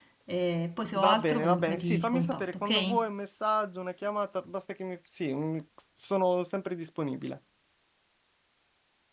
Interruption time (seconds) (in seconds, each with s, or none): 1.0 s